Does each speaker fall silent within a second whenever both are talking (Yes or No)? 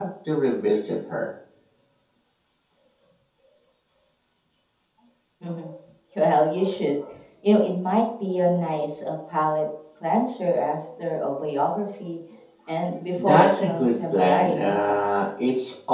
No